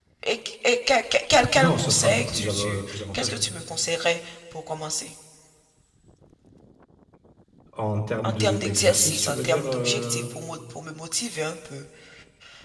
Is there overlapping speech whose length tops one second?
Yes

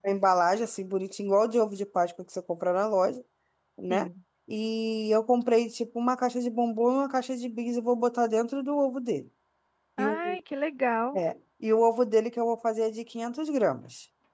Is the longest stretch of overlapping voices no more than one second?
Yes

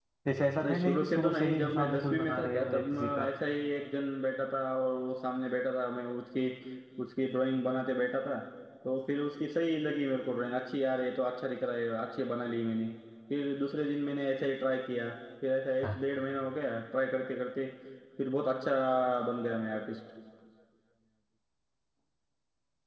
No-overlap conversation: No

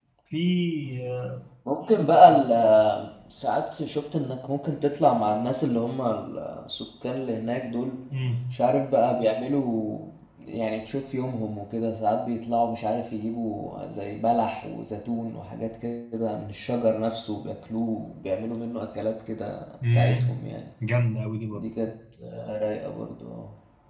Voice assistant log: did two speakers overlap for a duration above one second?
No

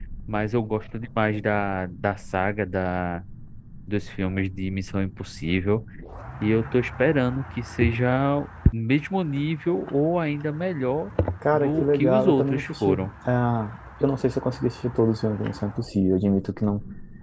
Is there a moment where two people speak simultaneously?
Yes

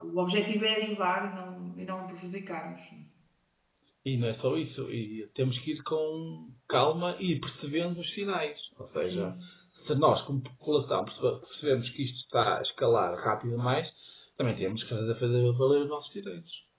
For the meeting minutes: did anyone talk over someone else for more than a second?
No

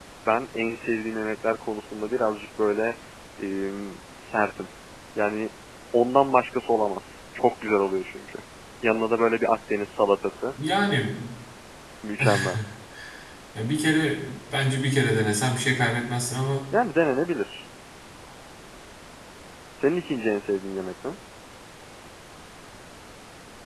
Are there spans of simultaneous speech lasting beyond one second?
No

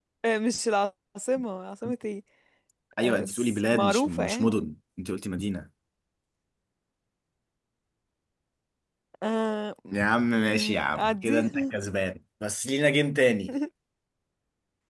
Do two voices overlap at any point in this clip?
Yes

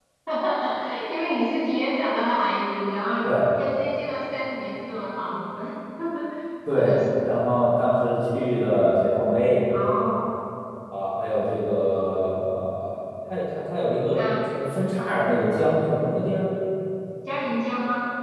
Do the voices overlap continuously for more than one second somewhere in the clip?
No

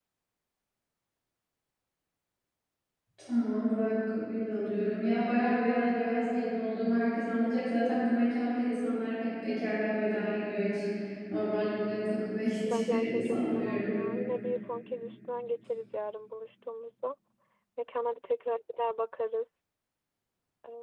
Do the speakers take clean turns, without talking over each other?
No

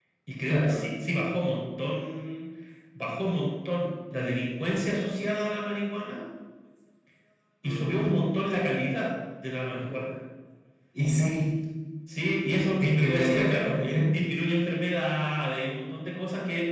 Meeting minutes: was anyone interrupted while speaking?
Yes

